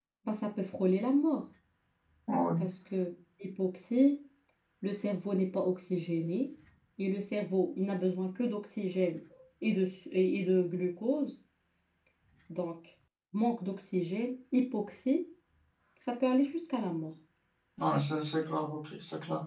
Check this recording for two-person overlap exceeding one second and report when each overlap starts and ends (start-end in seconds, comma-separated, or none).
none